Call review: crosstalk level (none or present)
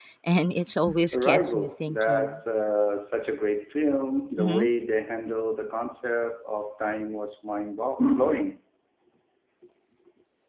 present